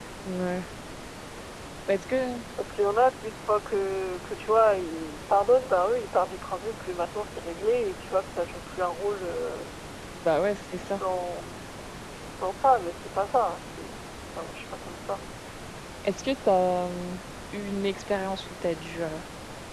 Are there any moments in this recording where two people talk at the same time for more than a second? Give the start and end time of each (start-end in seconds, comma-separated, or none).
none